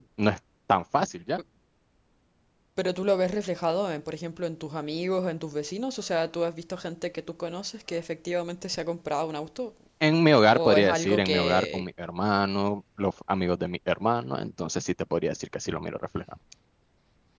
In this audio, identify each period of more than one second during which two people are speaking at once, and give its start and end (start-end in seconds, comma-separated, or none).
10.5-11.8